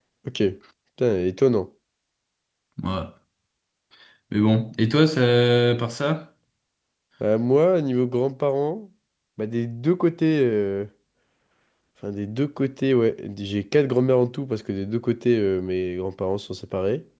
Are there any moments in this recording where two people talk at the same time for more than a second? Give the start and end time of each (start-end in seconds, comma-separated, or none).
none